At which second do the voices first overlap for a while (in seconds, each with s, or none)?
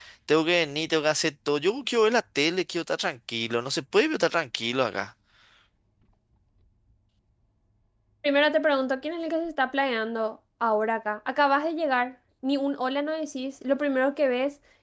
none